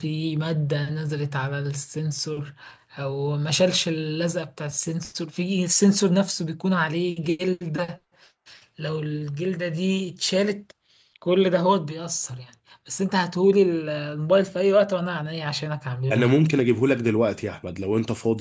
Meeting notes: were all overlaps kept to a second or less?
Yes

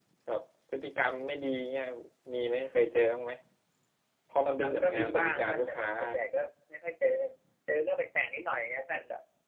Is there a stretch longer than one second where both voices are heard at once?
Yes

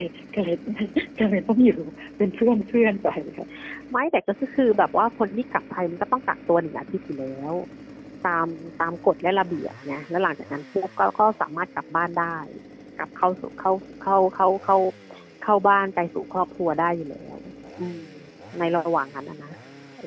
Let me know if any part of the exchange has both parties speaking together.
No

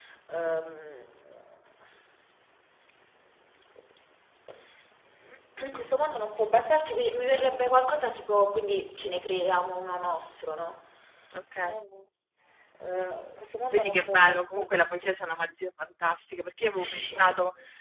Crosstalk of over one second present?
Yes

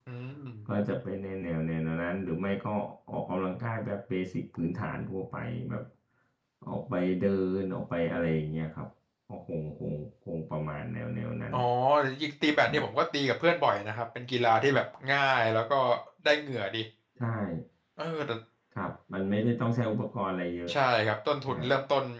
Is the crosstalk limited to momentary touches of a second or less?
Yes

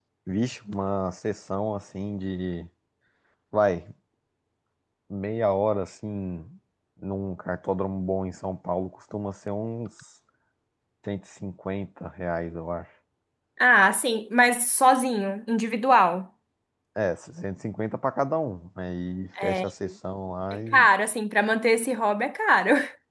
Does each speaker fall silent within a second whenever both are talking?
Yes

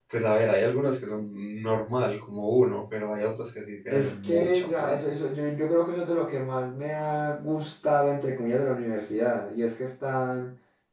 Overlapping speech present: Yes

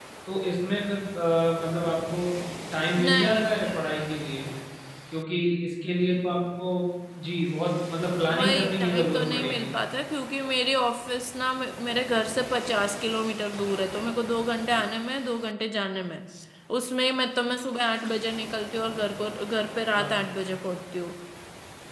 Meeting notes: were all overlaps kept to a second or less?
No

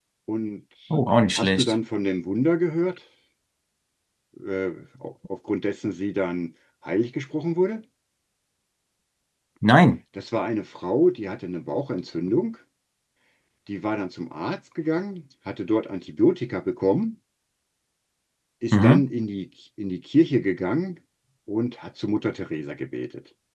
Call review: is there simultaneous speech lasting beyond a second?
No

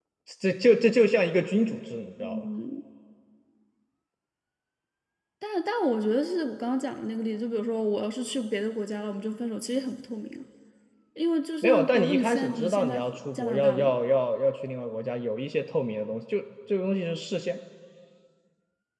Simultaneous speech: Yes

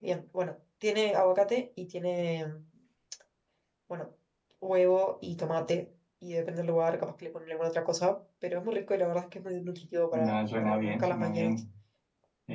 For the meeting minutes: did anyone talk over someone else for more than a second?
Yes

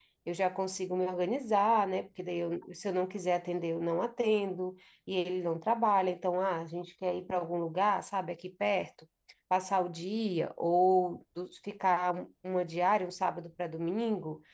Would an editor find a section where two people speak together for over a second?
No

